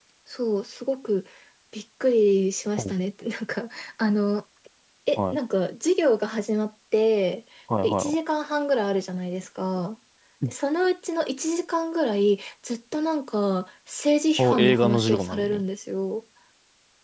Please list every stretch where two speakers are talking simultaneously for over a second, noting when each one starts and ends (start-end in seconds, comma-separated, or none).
14.4-15.6